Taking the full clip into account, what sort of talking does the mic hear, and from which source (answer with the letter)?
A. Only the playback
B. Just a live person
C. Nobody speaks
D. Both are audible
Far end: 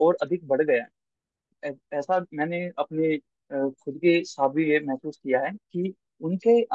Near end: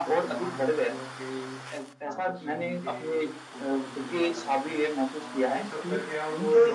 D